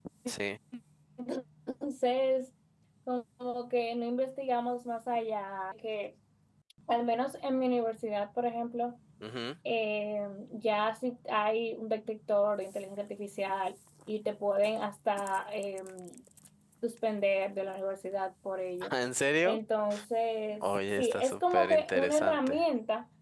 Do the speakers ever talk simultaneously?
Yes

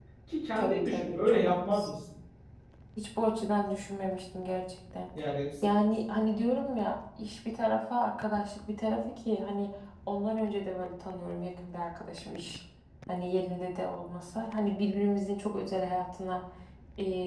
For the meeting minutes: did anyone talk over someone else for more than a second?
Yes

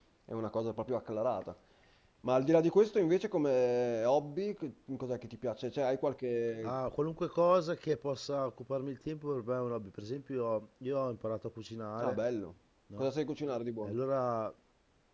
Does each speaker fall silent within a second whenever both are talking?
Yes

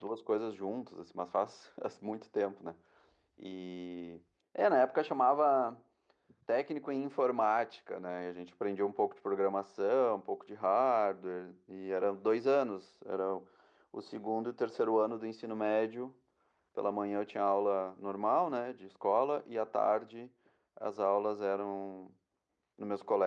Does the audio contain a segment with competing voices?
No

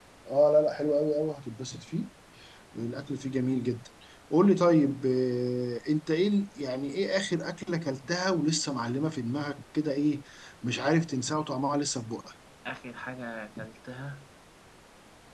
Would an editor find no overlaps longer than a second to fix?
Yes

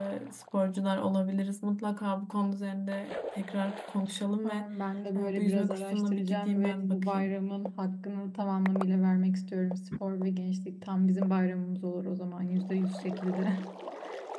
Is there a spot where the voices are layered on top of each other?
Yes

